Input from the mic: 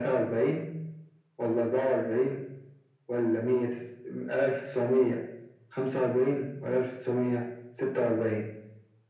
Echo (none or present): present